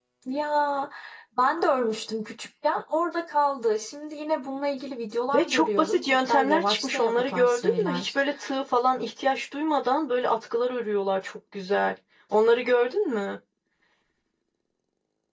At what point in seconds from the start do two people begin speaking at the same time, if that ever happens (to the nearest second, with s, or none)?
5 s